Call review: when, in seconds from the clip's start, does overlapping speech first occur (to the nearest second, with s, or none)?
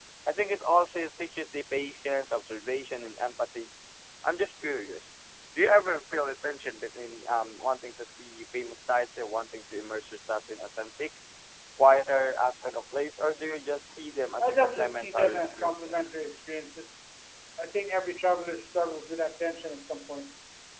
14 s